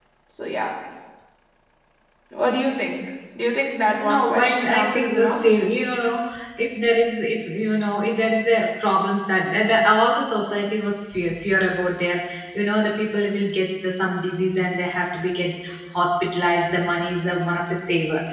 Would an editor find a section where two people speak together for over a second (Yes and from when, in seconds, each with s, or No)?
Yes, from 3.9 s